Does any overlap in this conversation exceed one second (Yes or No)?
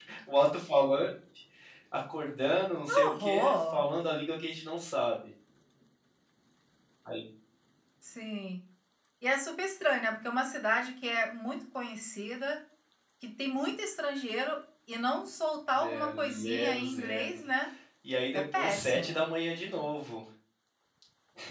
Yes